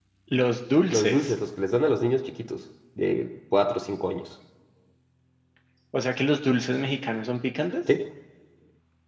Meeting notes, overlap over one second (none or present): none